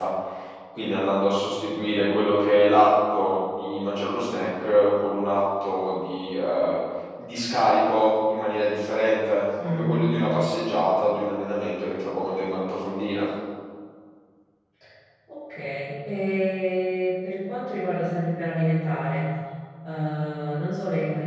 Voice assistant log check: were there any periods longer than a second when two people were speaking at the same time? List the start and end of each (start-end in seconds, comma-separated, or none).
none